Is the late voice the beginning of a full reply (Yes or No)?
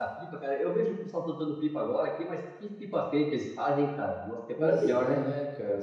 Yes